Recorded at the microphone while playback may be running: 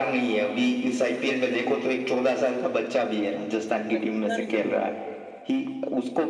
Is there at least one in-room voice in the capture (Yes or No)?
Yes